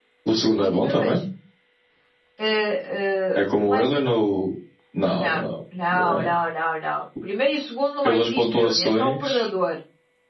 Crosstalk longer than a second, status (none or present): present